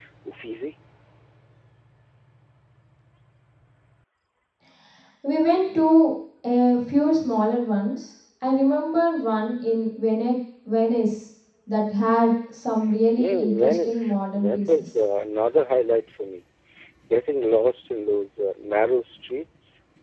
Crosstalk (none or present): present